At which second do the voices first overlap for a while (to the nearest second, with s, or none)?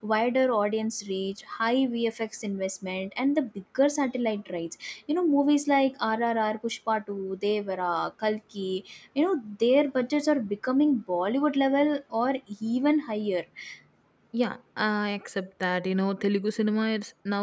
none